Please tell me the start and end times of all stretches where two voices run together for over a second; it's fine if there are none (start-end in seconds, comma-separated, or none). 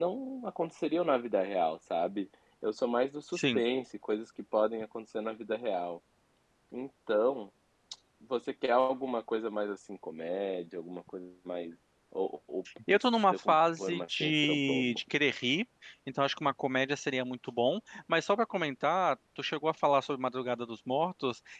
12.9-15.0